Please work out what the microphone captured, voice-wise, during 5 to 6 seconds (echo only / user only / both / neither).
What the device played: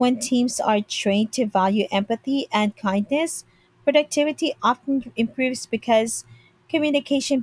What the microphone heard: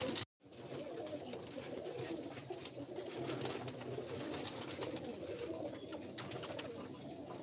neither